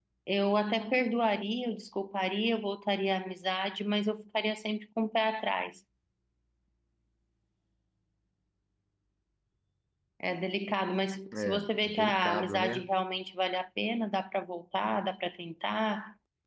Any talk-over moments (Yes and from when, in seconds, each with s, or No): Yes, from 11.3 s